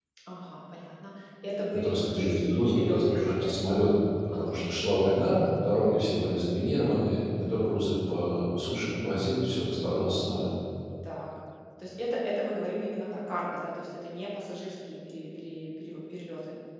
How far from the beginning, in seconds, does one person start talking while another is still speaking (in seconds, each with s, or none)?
1.7 s